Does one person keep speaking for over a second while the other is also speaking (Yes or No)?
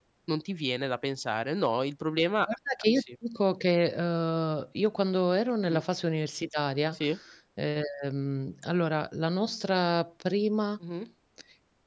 No